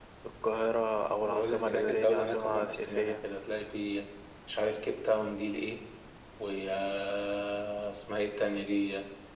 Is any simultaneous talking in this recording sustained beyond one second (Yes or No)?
Yes